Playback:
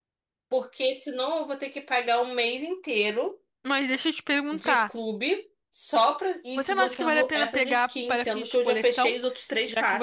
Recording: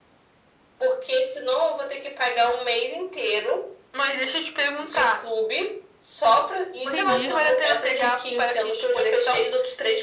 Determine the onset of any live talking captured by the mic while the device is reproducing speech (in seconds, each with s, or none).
6.8 s